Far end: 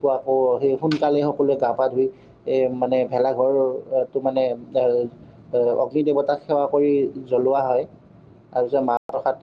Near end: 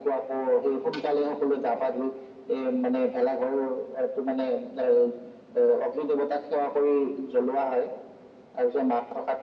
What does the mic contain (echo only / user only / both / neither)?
echo only